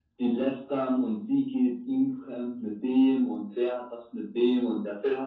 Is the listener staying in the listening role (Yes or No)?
Yes